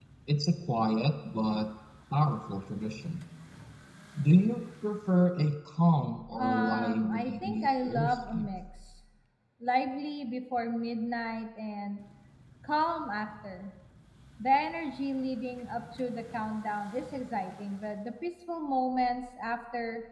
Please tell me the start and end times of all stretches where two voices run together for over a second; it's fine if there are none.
6.4-8.5

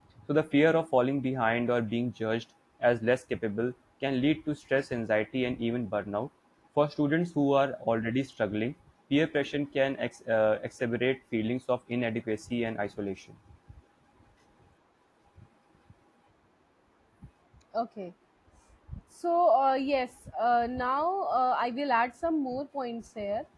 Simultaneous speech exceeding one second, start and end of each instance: none

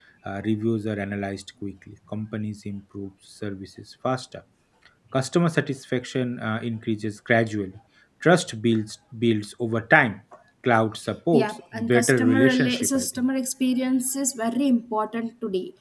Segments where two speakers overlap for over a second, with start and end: 11.3-13.1

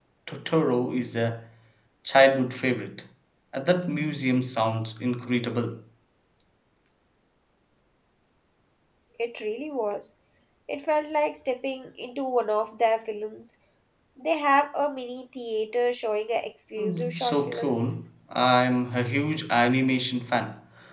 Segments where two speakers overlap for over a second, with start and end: 16.8-18.0

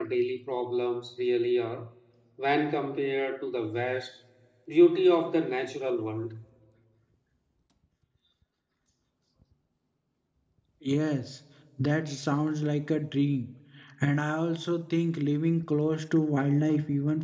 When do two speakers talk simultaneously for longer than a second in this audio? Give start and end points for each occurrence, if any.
none

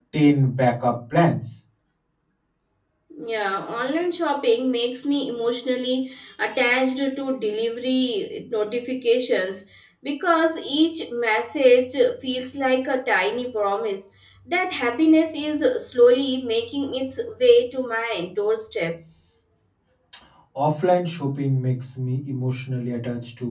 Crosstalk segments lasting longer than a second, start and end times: none

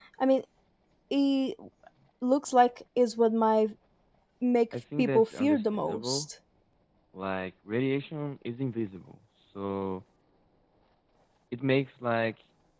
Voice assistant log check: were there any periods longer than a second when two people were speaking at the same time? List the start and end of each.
5.0-6.3

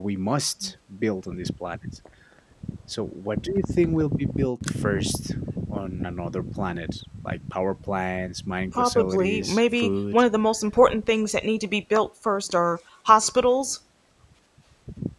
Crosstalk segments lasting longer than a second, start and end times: 8.7-10.2

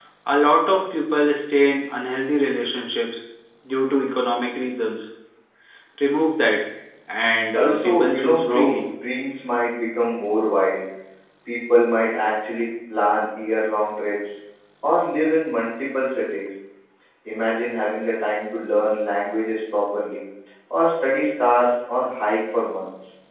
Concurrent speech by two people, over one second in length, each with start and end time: 7.5-8.8

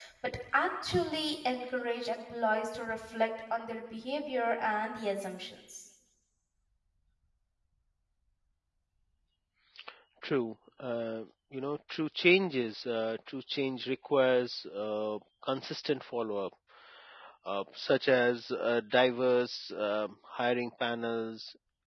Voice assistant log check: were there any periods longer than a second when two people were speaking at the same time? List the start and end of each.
none

